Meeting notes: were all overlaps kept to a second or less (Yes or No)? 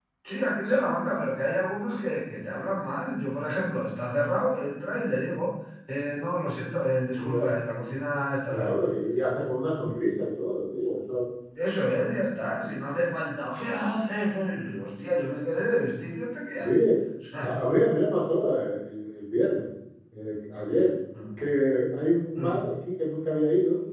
Yes